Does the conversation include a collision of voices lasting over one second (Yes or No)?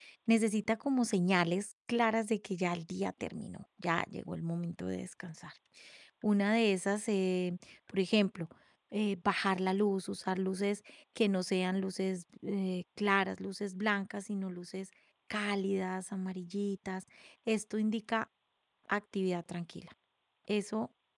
No